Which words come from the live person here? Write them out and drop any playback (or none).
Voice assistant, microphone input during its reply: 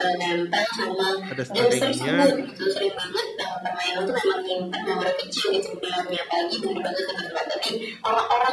ada strateginya,